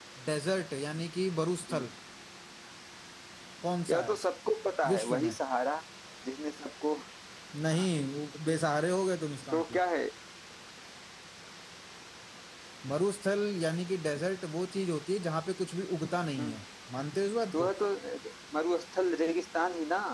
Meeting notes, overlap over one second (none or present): none